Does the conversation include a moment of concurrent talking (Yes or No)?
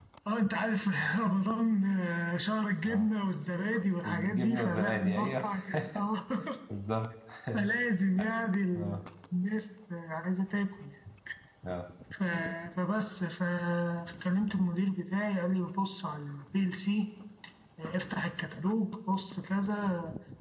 Yes